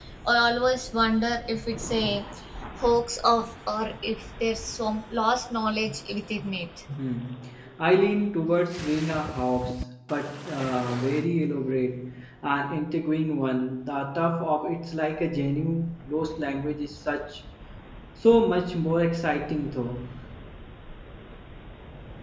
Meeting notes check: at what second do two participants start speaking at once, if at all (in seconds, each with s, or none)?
none